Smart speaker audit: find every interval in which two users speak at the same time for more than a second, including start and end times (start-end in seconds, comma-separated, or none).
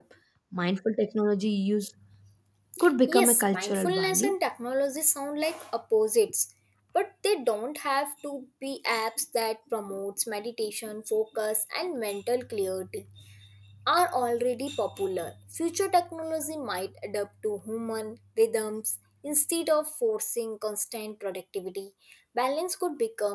3.1-4.4